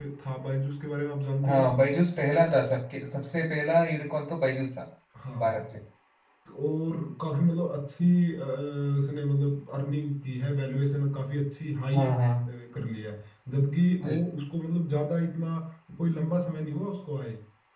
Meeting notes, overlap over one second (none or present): none